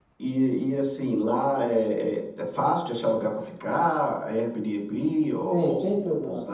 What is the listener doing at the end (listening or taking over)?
taking over